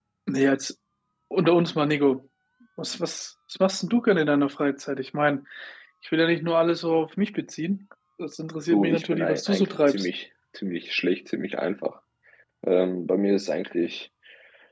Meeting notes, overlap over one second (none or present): present